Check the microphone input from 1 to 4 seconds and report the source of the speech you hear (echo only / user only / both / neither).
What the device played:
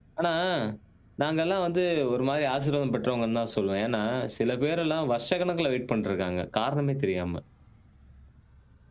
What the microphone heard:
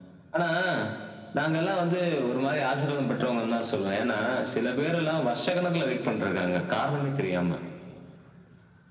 echo only